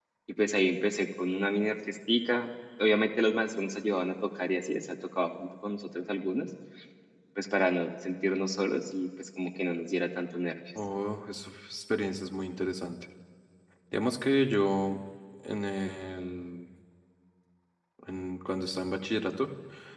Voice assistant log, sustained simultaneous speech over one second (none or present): none